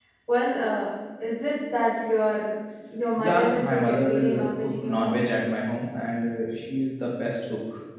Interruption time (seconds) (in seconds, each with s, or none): 3.2 s